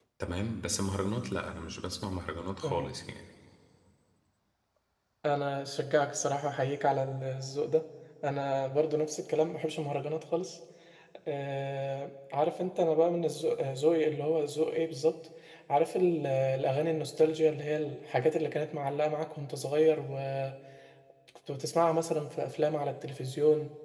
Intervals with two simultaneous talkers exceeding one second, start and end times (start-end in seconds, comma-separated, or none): none